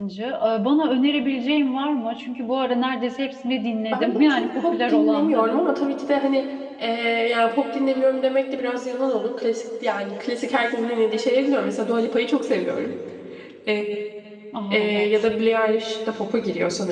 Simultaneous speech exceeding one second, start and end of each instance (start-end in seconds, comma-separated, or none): 3.9-5.6